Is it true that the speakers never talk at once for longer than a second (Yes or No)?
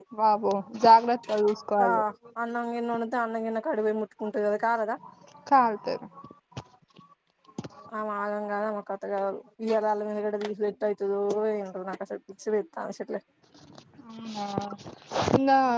Yes